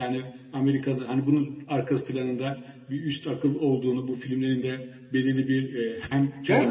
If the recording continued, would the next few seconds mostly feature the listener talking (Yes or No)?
Yes